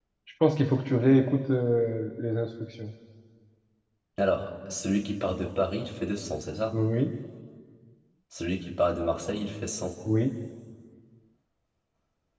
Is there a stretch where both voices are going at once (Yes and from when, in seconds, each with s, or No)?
No